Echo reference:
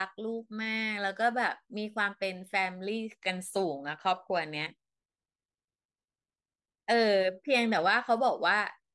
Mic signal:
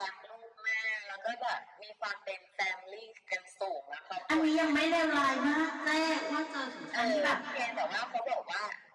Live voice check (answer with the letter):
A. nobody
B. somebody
B